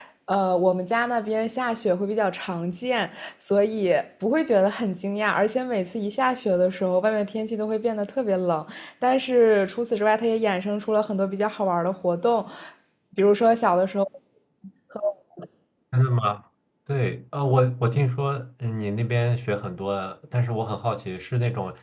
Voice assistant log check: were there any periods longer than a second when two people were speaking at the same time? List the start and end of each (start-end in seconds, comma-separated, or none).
none